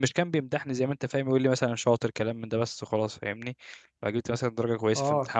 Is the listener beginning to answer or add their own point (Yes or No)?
Yes